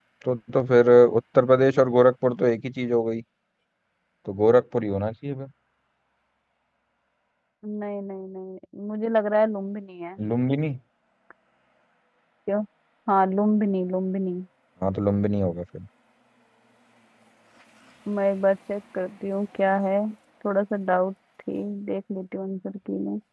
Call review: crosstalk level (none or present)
none